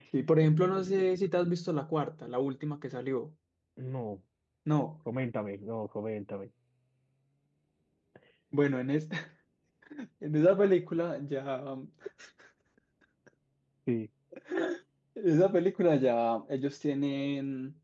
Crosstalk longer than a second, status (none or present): none